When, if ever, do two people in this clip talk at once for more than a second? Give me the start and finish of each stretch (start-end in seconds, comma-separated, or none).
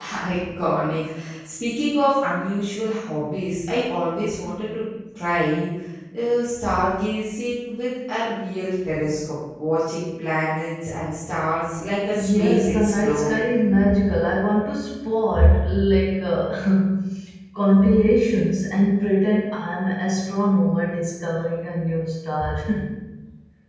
12.1-13.5